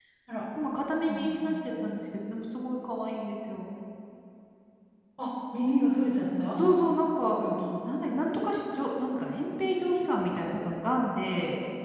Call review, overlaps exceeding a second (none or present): none